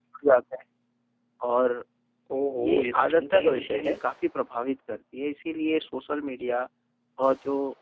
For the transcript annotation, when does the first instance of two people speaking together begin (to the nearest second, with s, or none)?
3 s